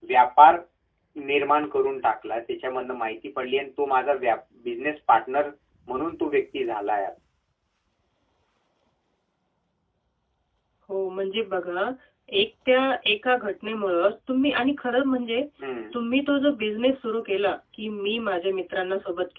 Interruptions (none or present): none